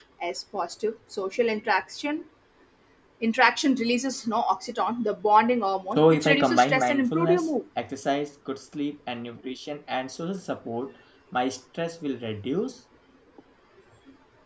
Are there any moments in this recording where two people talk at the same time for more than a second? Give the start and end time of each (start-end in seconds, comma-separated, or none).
6.0-7.5